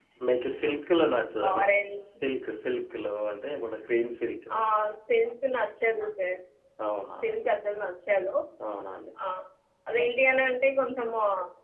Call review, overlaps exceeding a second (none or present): none